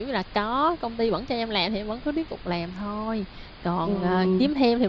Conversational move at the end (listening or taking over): listening